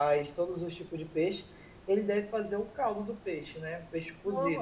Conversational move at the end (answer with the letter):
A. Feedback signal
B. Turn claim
B